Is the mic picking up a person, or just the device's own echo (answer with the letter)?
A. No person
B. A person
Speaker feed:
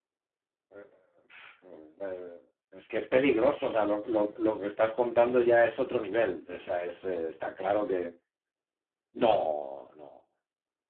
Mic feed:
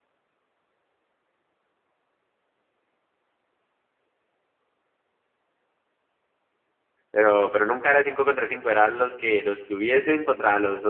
B